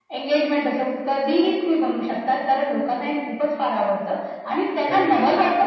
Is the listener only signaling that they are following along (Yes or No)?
Yes